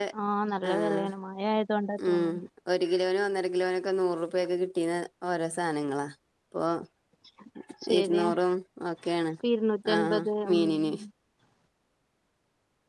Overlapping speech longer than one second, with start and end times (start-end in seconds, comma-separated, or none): none